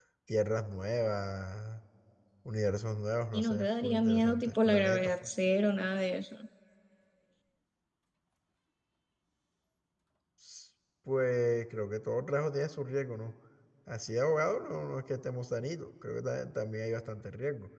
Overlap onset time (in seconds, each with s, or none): 3.3 s